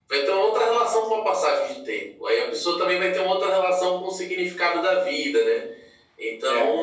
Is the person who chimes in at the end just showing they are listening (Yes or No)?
Yes